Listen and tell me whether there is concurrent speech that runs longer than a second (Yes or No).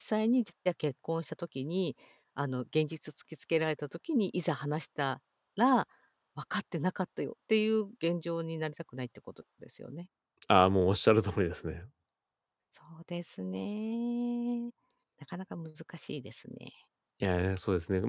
No